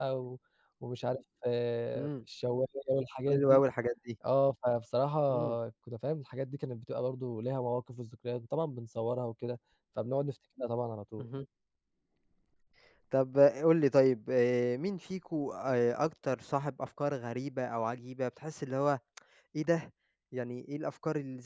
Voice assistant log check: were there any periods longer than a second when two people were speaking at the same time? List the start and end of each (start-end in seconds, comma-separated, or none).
none